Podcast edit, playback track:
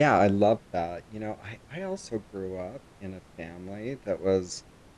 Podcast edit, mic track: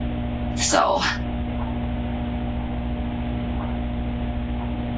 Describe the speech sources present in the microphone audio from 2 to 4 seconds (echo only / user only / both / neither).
neither